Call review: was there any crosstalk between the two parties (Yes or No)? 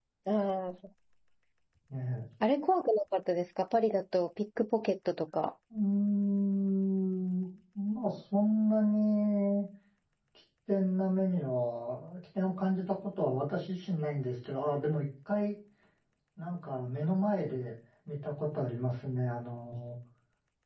No